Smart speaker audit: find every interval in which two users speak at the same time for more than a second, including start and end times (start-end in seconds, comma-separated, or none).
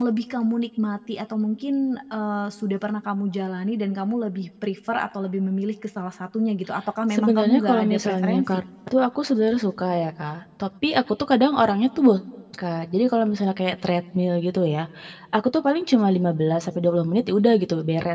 7.1-8.5